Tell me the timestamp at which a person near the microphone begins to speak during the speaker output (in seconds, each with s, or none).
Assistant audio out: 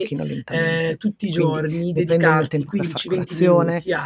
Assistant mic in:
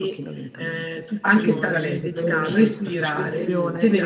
1.2 s